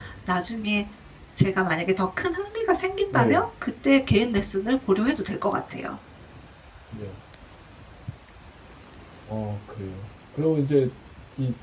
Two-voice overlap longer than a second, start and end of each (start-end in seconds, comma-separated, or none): none